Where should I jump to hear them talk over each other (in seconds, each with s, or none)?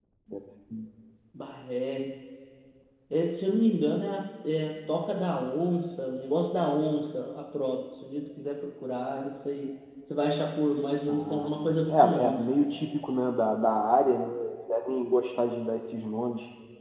11.1 s